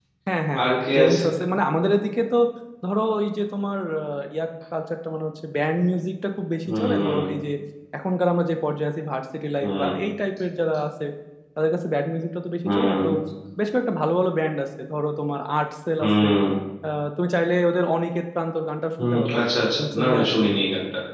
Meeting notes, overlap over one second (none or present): present